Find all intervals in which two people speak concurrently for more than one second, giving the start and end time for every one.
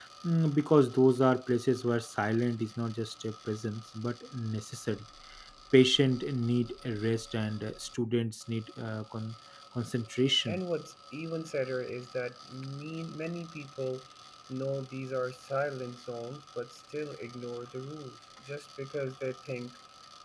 none

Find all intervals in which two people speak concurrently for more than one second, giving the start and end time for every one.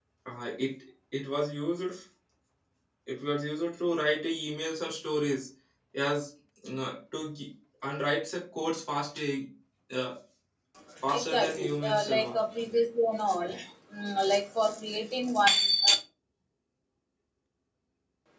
11.1-12.4

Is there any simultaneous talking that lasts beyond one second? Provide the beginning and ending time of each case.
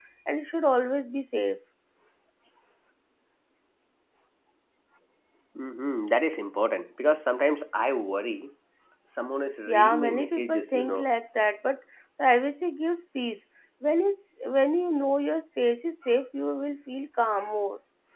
9.7-11.1

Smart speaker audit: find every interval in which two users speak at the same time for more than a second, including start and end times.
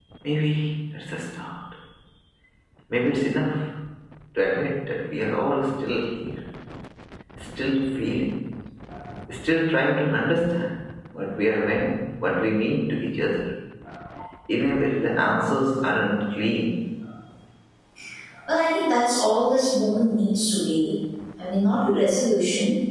none

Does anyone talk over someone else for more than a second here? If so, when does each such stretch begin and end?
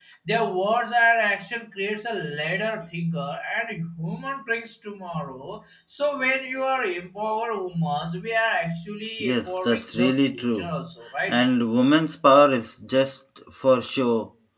9.2-10.7

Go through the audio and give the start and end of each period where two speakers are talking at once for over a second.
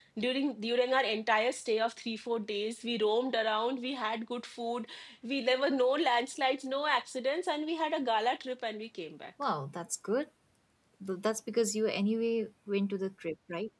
none

